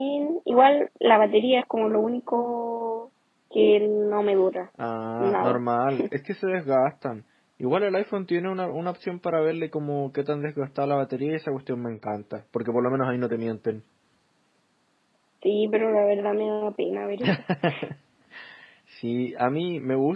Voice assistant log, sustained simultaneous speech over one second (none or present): none